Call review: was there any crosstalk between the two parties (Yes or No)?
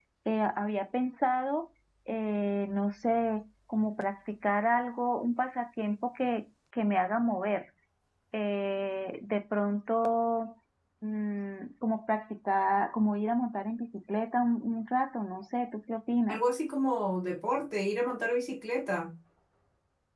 No